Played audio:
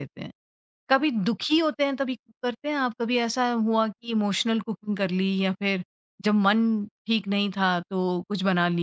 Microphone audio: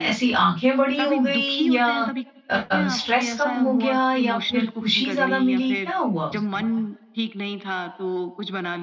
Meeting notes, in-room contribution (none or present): present